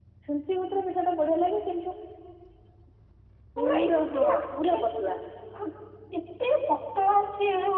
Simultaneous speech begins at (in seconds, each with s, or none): 3.6 s